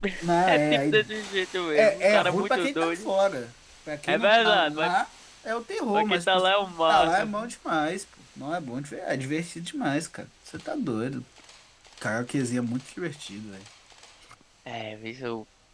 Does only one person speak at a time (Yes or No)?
No